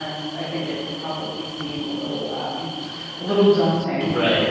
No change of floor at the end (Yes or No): No